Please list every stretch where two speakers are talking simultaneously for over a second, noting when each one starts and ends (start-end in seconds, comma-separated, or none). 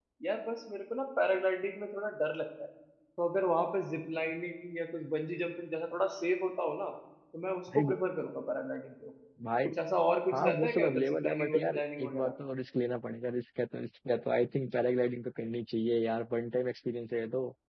10.3-12.3